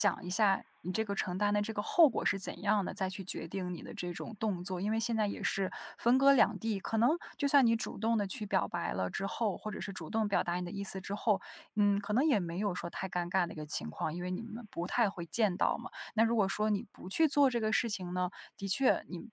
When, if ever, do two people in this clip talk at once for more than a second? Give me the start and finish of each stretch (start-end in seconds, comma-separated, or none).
none